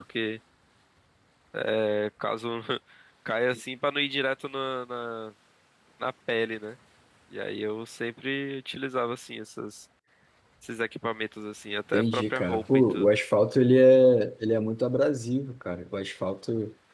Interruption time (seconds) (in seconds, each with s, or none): 11.9 s